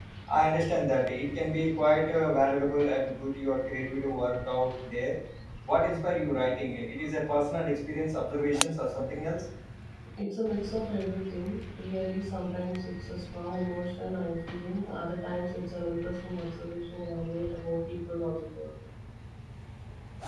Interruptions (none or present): none